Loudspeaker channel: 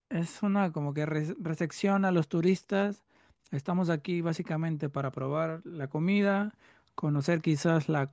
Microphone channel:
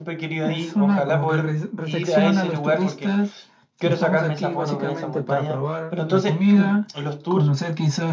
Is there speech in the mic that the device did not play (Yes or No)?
Yes